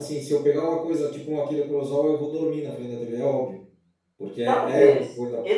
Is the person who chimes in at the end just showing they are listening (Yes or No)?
No